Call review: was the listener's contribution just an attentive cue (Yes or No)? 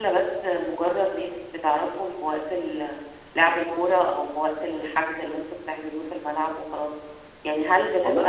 Yes